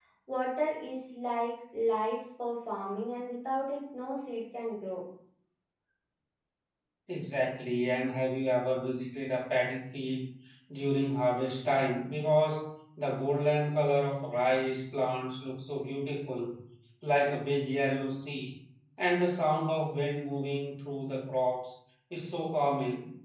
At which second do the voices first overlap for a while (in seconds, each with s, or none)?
none